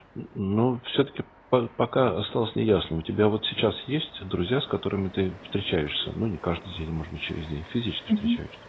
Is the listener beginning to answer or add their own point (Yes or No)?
Yes